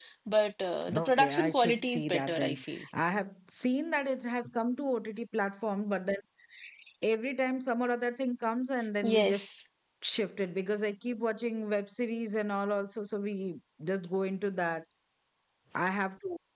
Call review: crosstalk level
present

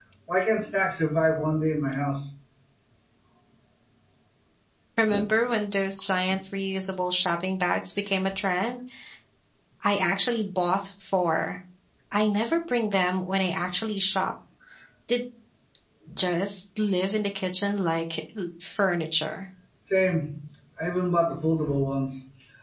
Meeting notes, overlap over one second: none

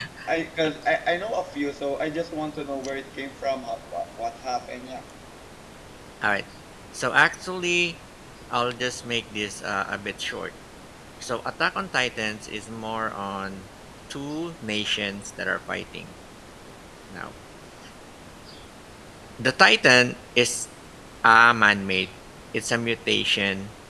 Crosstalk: none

